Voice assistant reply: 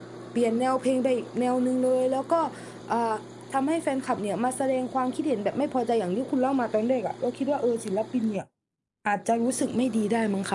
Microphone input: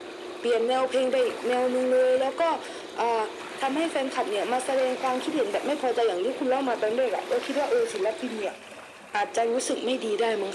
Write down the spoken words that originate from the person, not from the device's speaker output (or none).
none